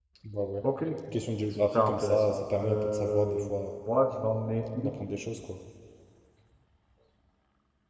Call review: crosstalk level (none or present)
present